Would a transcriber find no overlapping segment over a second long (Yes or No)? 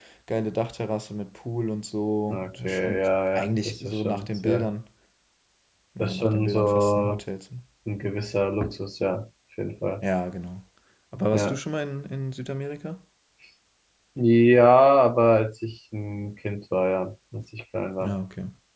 No